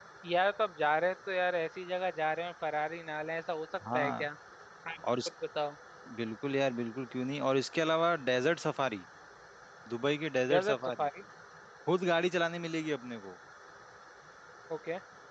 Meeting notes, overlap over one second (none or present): none